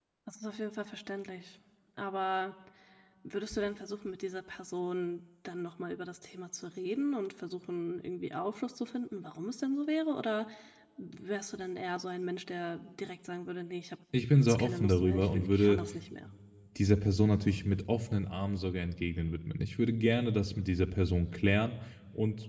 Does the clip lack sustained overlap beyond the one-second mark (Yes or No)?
No